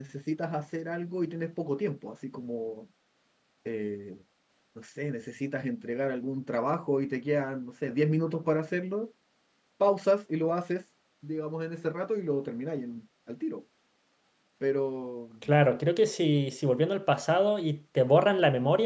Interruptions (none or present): none